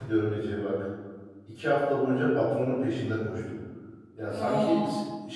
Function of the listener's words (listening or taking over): listening